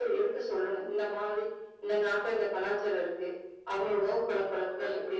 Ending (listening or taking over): listening